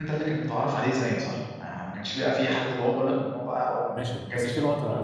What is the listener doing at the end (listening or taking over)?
taking over